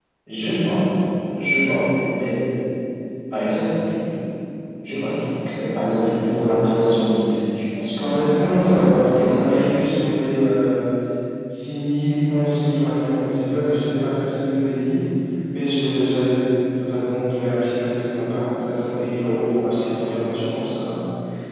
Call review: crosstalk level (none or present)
present